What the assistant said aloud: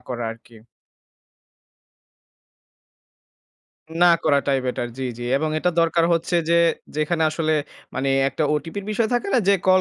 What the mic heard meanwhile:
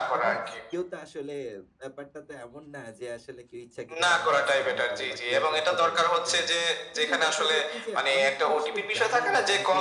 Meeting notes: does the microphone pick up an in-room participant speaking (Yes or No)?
Yes